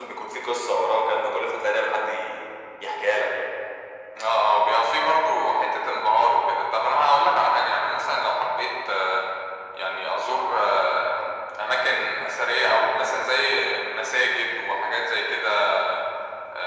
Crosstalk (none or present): none